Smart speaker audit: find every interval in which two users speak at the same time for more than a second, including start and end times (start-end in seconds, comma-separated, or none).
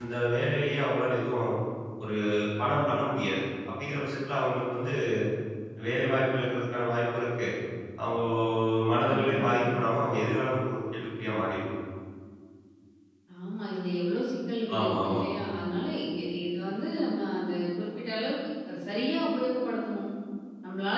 none